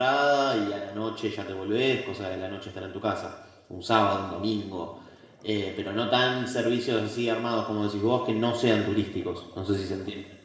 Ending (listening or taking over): taking over